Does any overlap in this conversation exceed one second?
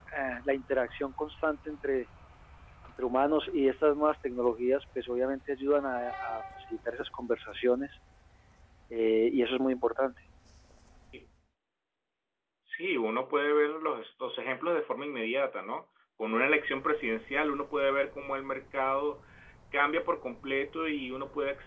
No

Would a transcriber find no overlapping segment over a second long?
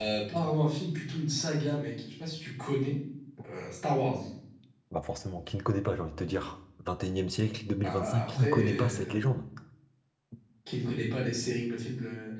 No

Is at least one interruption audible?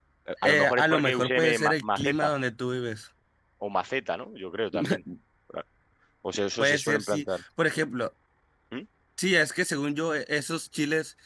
Yes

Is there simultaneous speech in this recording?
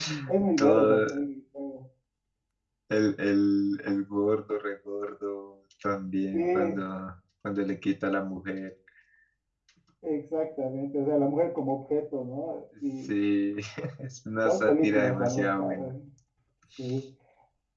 Yes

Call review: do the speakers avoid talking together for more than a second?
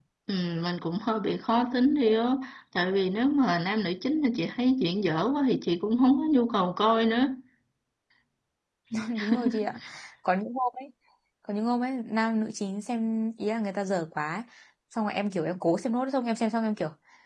Yes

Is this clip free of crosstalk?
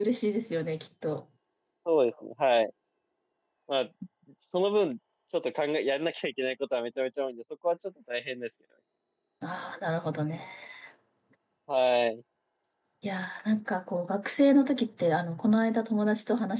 Yes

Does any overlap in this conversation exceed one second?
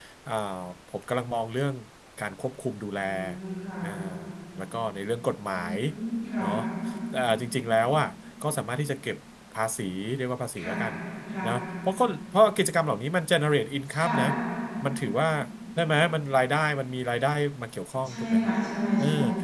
No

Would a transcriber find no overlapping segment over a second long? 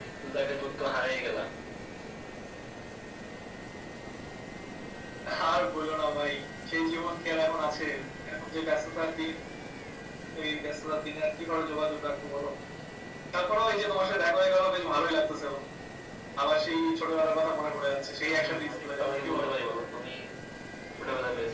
No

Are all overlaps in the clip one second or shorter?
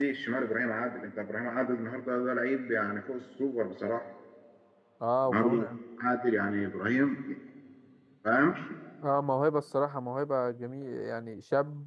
Yes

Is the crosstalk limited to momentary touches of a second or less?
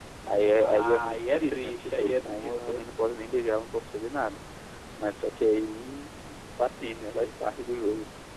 No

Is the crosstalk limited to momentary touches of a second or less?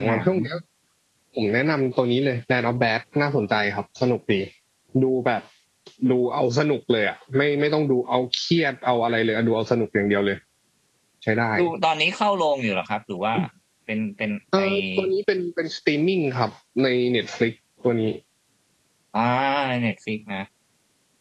Yes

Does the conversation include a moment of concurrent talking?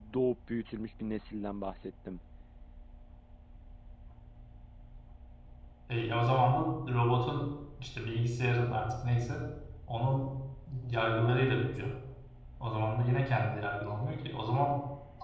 No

